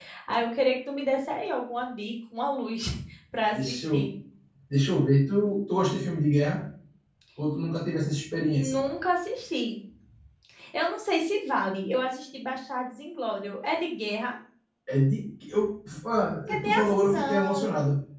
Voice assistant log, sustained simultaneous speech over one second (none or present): present